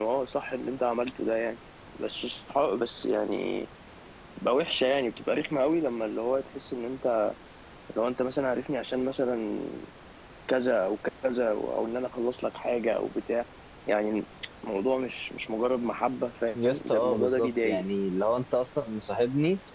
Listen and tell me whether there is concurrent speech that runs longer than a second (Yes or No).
Yes